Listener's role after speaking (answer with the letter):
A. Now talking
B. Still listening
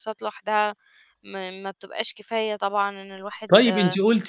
A